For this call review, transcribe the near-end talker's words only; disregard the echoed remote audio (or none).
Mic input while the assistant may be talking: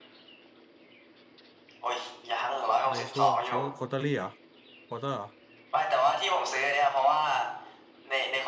ในช่วงเขาควอเตอรี่เหรอควอเตอร์เหรอ